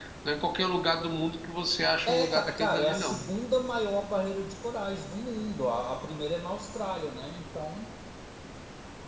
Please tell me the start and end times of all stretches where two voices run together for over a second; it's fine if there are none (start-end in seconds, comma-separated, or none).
2.0-3.3